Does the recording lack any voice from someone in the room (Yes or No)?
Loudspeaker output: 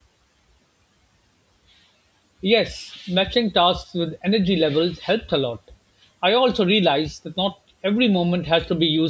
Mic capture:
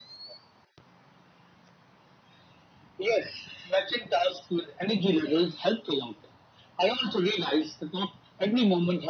Yes